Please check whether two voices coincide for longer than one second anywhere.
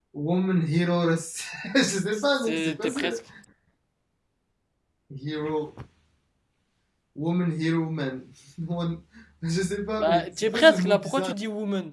Yes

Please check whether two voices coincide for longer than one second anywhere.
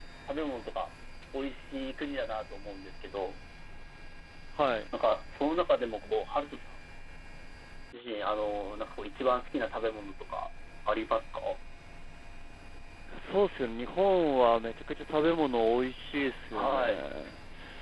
No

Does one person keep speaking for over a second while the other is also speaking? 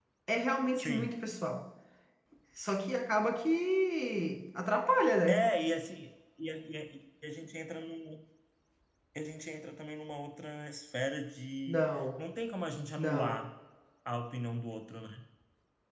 No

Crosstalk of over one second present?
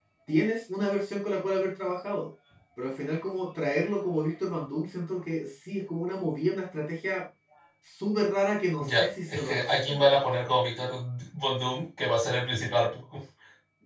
Yes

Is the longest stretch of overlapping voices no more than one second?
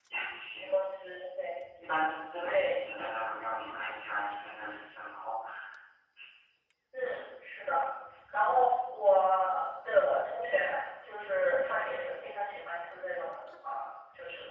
Yes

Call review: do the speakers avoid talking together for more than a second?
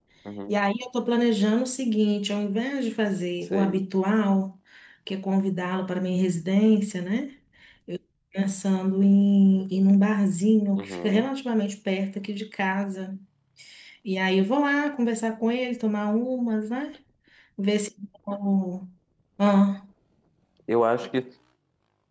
Yes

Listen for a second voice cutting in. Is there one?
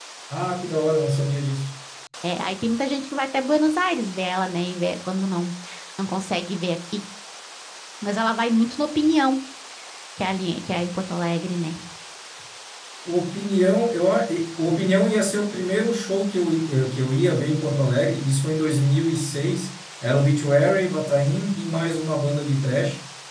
No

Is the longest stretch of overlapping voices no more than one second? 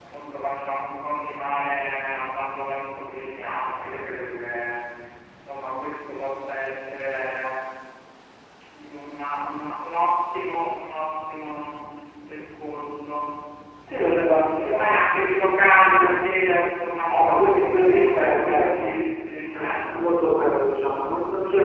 No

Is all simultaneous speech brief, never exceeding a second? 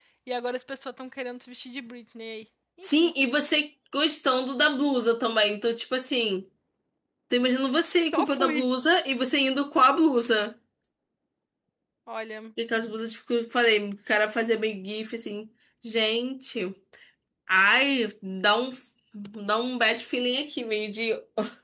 Yes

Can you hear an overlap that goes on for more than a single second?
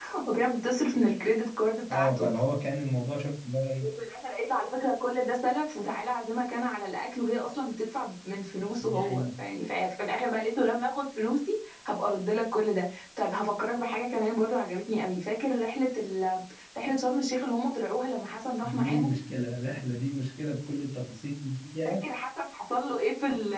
No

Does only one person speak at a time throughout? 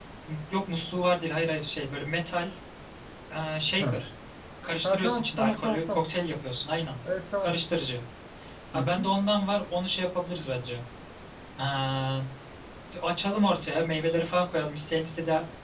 No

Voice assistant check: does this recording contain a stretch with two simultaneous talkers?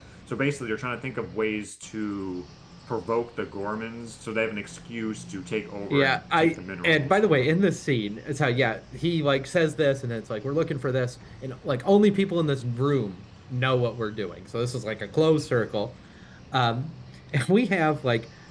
Yes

